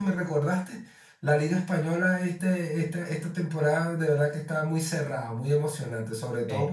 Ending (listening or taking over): listening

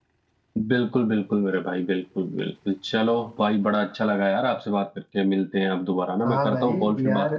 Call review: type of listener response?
taking over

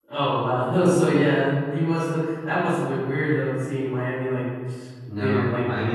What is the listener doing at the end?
taking over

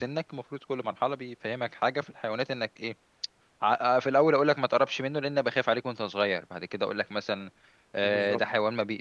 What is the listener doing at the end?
listening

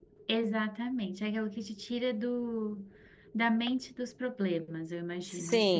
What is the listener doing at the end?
taking over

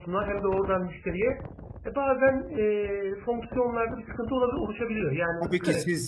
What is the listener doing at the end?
taking over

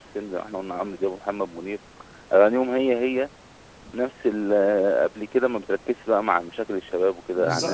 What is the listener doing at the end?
taking over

